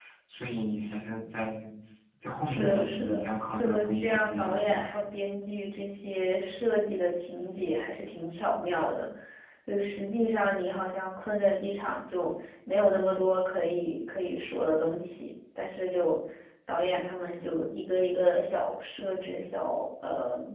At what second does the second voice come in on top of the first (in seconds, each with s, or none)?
2.4 s